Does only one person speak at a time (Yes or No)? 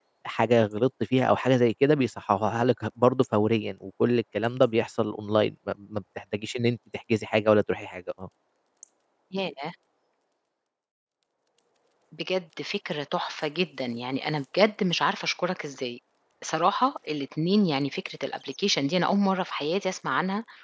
Yes